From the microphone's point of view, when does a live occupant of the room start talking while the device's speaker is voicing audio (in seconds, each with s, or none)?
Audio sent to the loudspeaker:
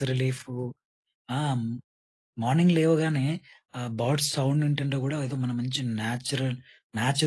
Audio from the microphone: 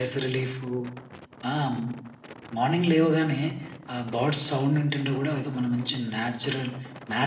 none